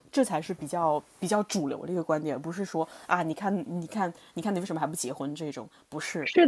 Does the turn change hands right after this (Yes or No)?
Yes